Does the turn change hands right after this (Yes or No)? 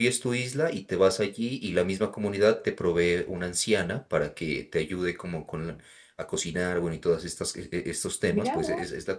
Yes